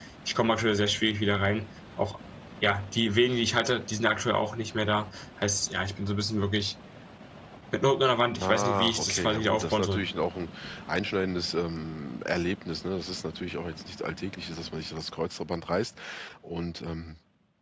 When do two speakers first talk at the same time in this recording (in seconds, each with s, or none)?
8.4 s